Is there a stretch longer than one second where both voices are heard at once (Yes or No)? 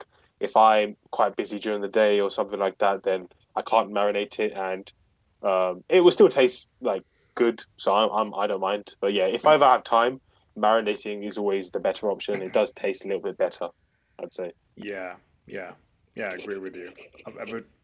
No